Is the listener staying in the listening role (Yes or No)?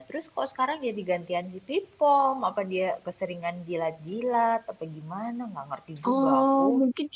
No